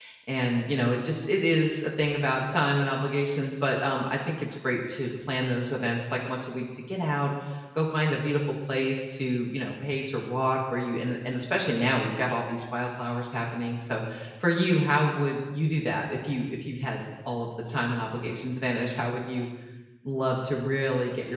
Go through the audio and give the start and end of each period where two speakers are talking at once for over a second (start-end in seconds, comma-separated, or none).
none